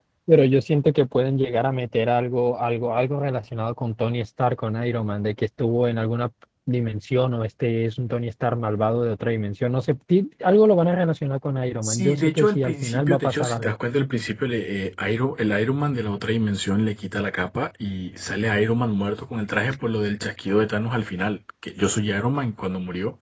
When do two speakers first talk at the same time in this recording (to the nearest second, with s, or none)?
12 s